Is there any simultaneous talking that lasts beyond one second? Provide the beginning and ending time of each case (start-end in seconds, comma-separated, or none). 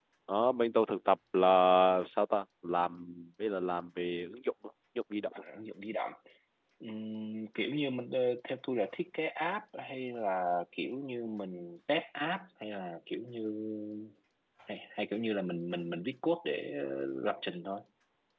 none